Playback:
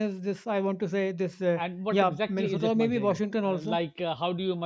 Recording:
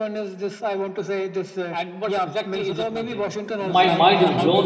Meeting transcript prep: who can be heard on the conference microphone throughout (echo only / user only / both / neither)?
both